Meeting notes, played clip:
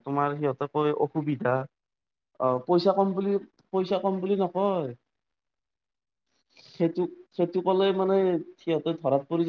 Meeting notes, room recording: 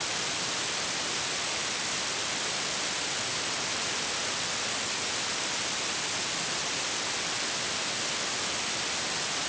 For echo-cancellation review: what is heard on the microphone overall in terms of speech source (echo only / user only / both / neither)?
neither